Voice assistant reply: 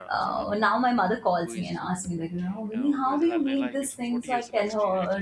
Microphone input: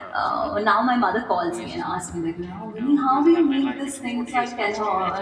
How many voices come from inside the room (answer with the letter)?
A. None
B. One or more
A